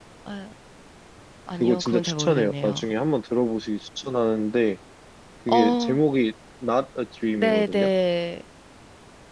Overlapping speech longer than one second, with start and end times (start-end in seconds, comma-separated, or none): 1.6-2.8